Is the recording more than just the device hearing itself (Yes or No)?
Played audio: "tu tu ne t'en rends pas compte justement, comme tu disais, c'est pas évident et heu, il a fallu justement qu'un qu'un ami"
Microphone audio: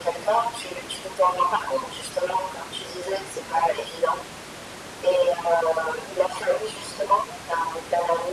No